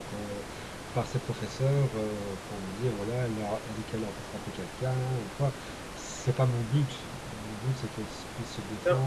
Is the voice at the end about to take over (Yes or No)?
Yes